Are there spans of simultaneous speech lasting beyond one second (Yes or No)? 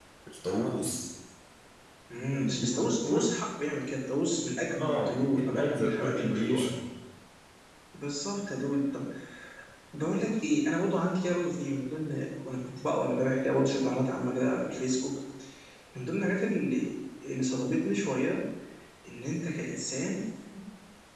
Yes